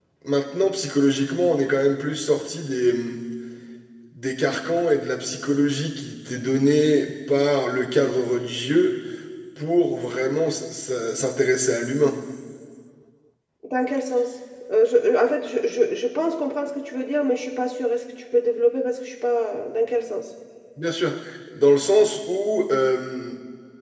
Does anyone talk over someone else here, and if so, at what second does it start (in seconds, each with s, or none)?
none